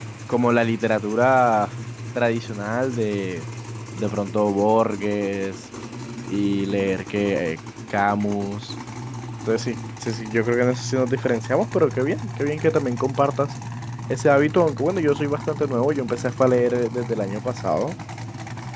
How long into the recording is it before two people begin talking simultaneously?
none

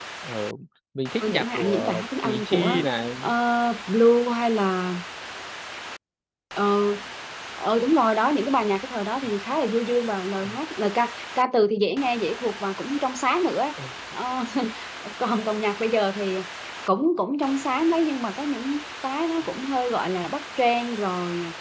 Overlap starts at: 1.3 s

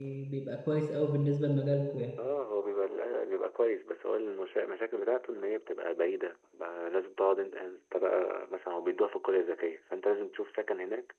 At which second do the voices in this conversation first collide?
none

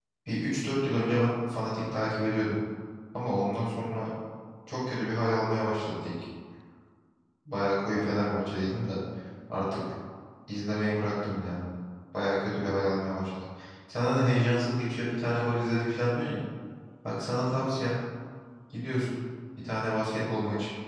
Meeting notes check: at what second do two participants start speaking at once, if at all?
none

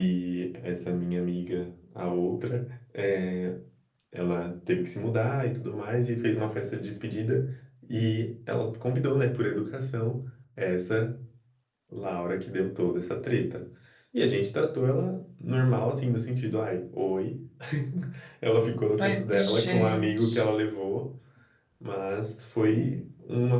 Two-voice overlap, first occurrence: 19.0 s

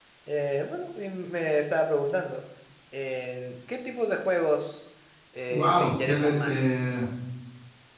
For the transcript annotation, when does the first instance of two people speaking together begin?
5.5 s

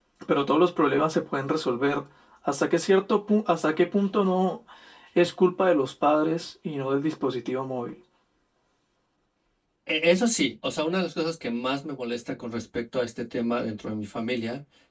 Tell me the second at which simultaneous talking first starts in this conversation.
none

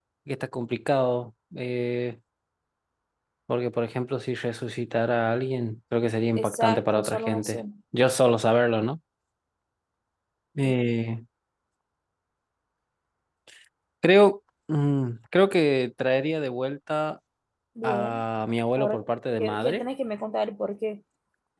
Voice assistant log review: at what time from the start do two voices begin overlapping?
6.3 s

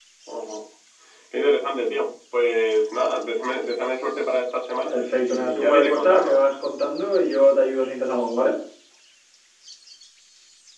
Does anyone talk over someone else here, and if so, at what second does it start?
4.9 s

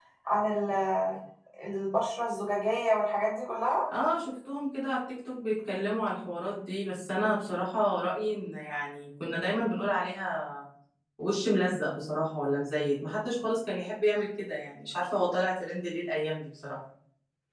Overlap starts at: none

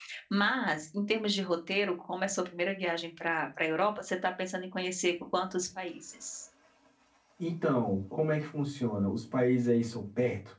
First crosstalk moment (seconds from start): none

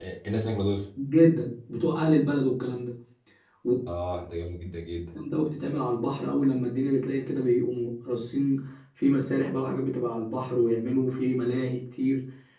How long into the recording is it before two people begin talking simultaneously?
none

